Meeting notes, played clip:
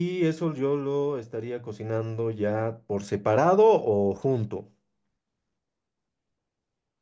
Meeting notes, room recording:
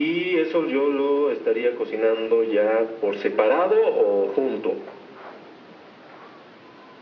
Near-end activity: none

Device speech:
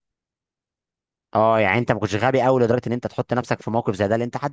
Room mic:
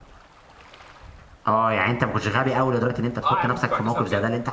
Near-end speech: present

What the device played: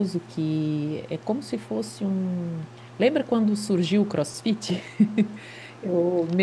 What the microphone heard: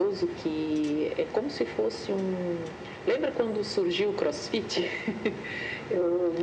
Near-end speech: none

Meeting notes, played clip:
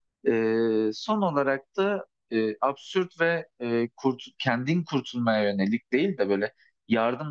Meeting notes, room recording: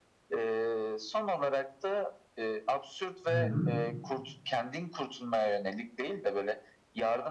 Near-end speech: present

